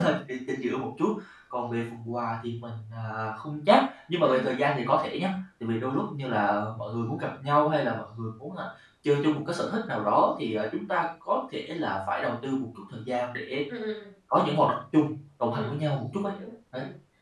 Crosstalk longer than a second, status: none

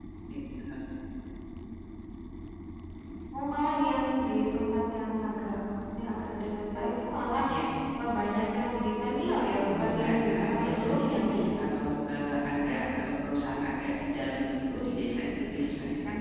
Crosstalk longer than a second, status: present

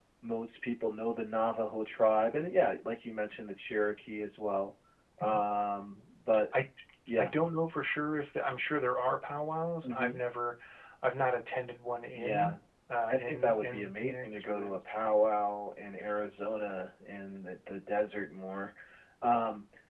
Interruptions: present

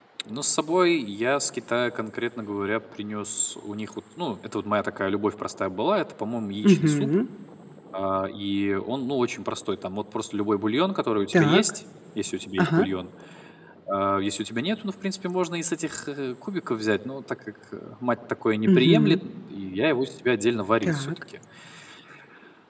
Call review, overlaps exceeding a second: none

